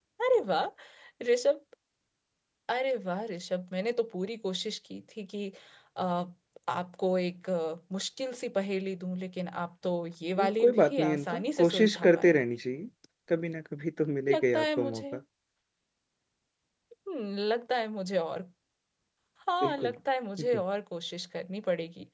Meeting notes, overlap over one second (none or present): present